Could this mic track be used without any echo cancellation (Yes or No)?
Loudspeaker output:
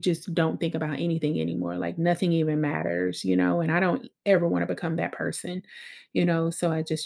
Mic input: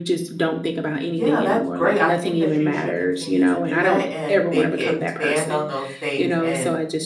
No